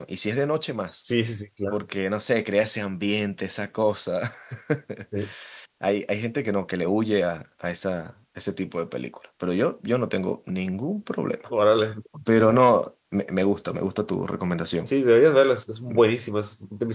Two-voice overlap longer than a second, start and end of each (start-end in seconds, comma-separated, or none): none